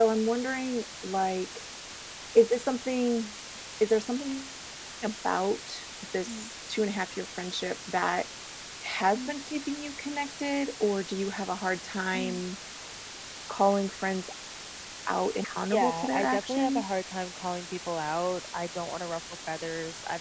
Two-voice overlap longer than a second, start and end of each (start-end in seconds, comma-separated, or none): 15.7-16.9